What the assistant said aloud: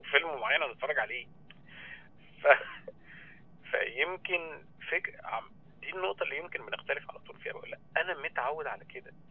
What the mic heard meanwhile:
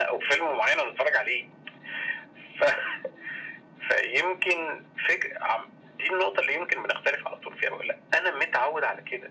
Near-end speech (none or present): none